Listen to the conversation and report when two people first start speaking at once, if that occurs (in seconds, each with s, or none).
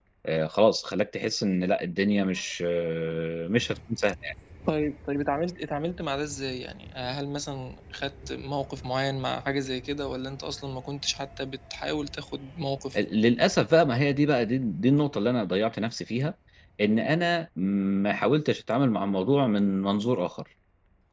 none